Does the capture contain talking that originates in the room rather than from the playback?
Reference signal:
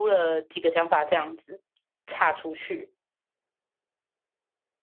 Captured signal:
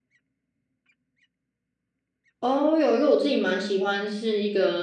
Yes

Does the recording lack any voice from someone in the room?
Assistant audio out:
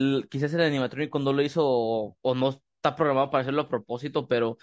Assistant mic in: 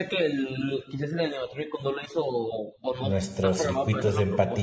No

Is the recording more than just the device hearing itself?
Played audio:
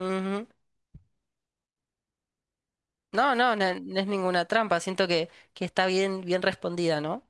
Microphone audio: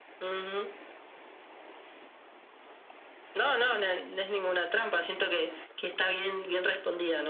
No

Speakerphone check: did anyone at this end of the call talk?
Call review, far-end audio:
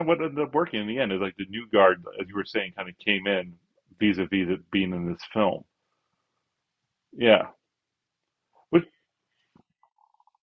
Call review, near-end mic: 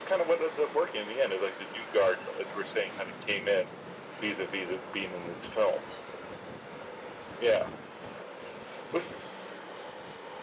No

